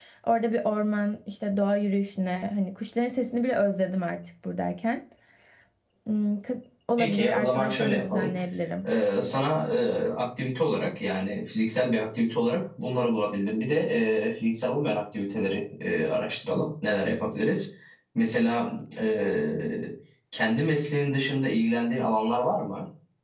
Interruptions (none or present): present